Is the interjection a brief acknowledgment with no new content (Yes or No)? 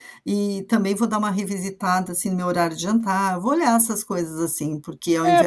No